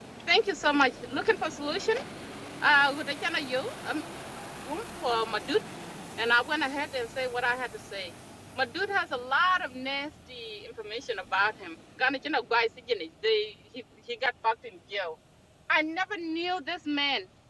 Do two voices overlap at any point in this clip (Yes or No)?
No